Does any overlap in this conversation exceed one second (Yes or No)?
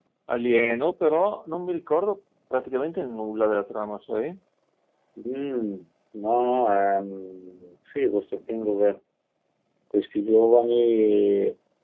No